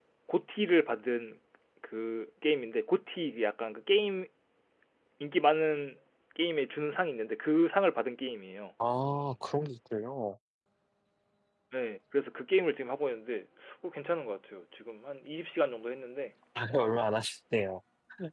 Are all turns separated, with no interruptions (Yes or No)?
Yes